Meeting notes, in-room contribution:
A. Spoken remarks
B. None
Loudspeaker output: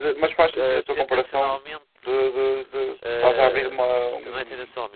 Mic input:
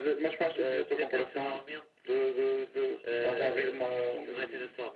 B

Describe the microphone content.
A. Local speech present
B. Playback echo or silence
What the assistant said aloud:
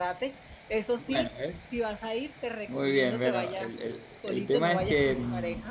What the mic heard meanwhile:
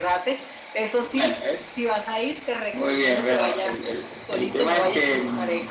B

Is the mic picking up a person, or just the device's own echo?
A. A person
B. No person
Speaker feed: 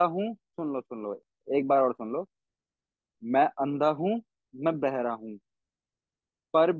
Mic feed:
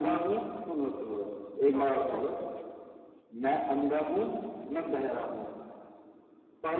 A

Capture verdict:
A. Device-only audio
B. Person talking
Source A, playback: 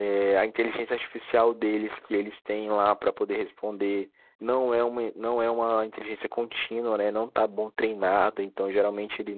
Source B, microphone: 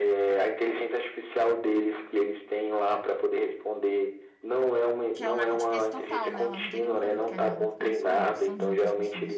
B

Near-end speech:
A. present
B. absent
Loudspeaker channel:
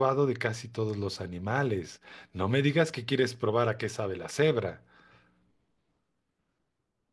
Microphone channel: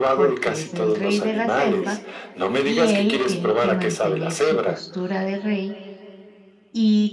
A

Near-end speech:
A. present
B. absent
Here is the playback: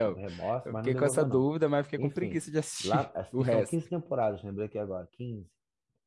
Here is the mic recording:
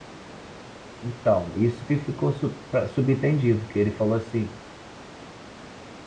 A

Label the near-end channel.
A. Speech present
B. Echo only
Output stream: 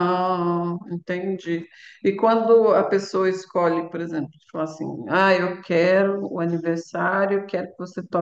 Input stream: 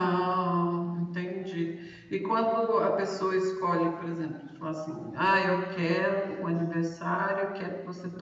B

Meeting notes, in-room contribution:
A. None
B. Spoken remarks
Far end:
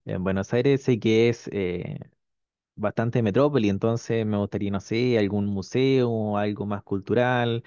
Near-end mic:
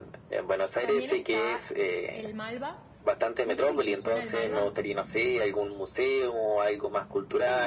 B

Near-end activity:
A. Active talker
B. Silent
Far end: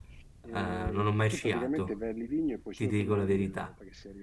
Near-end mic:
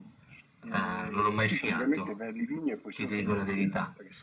B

